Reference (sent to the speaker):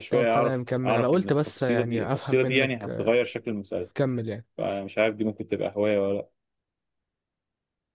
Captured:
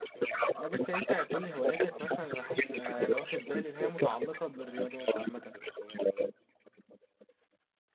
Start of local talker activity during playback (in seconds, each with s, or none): 0.5 s